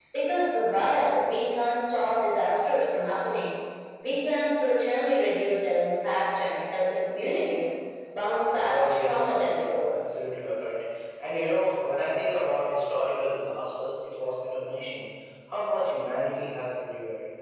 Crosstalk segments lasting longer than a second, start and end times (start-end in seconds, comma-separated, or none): 8.6-9.9